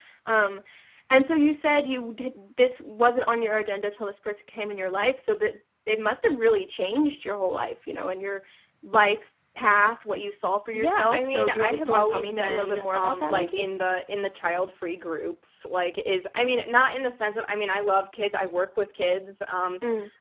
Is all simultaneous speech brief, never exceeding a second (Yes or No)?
No